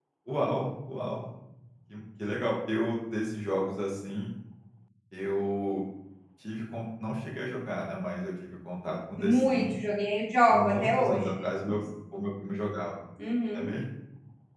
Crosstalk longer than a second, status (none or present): present